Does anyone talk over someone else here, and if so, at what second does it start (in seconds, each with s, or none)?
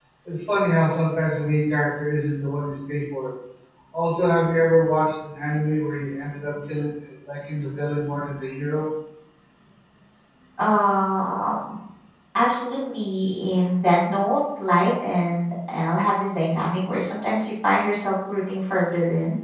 none